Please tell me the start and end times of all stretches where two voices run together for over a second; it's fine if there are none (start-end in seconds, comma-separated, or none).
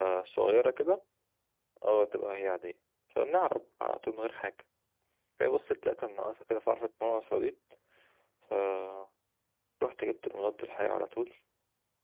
none